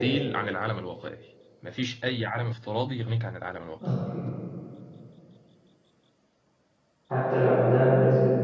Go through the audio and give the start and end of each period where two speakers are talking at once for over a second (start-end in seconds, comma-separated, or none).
none